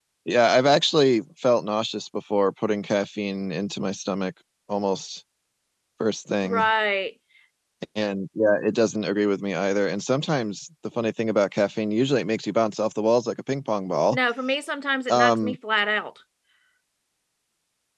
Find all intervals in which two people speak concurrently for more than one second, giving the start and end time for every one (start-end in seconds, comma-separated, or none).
none